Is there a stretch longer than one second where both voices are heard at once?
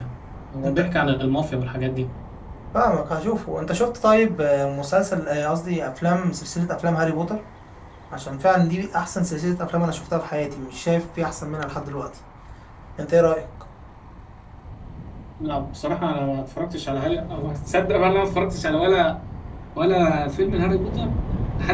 No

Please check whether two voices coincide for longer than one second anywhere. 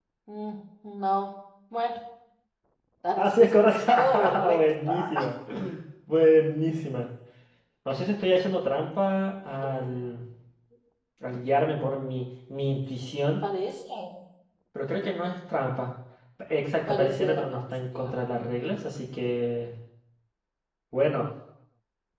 Yes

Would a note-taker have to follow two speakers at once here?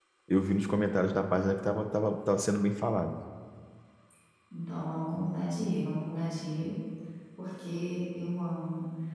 No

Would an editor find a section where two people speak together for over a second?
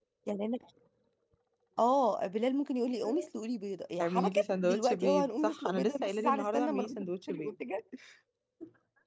Yes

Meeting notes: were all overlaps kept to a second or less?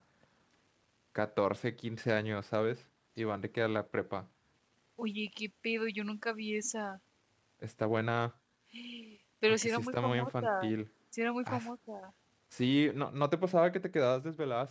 No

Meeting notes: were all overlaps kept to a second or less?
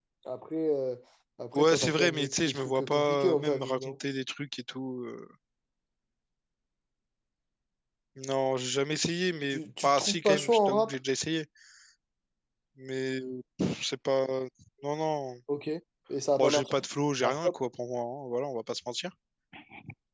No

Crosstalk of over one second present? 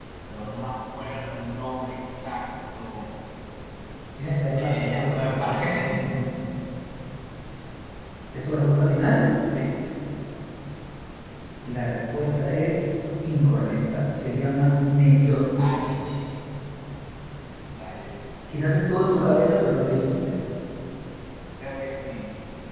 Yes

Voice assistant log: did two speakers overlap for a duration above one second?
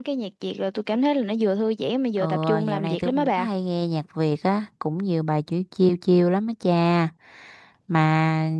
Yes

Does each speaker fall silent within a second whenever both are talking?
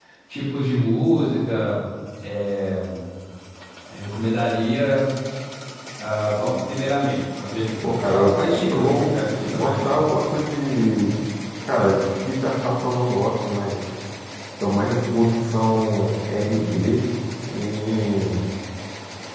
No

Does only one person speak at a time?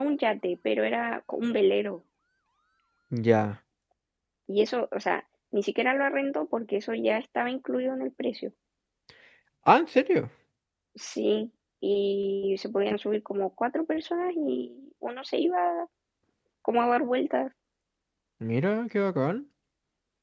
Yes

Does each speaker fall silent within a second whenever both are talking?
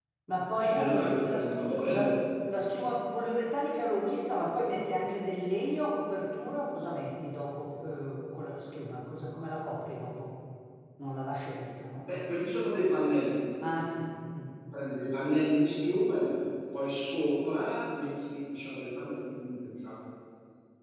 No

